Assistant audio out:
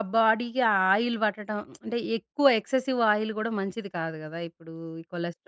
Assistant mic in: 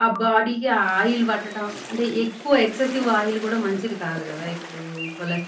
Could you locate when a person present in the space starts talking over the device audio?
none

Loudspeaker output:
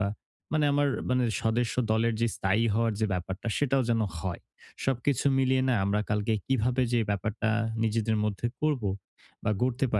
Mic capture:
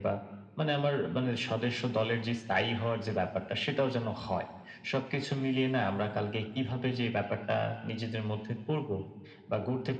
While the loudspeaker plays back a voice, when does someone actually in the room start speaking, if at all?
none

